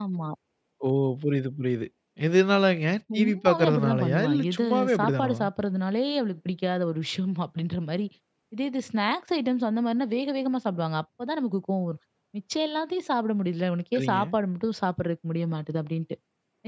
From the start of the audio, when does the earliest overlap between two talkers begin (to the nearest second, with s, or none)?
3 s